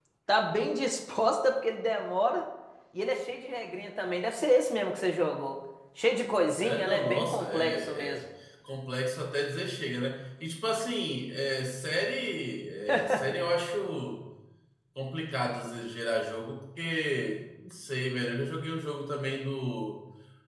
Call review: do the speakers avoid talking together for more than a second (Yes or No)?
No